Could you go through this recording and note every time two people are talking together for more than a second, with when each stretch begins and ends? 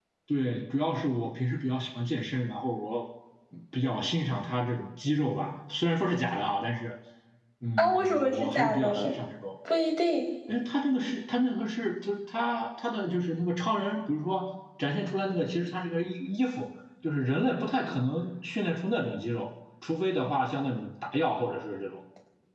7.8-9.1

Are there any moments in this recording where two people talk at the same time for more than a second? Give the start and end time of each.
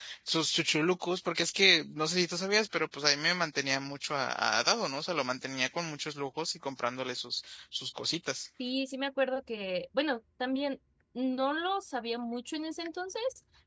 none

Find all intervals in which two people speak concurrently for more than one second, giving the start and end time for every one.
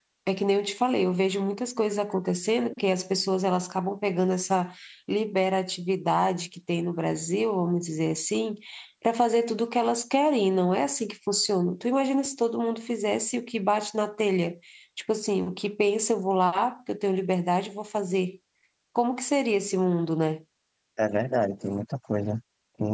none

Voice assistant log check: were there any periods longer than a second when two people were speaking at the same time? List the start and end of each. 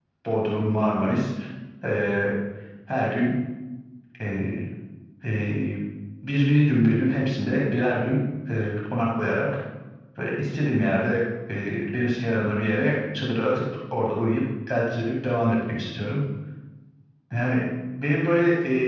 none

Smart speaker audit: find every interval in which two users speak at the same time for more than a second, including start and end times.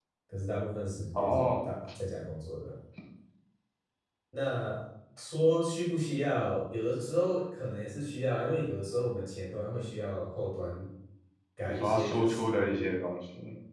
11.7-13.0

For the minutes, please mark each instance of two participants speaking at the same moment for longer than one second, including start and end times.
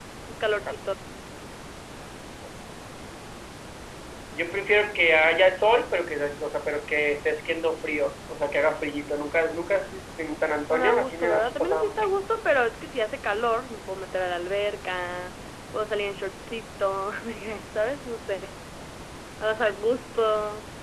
10.7-12.1

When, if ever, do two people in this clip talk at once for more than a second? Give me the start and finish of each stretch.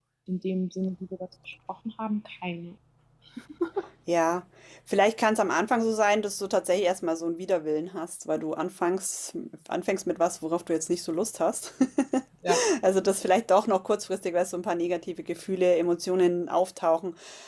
none

